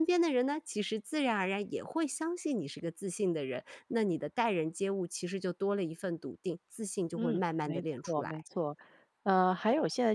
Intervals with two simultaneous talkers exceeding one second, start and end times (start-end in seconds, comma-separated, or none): 7.2-8.4